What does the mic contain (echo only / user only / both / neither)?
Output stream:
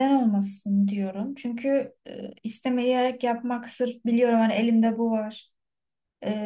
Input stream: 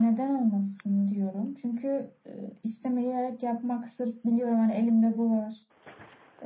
echo only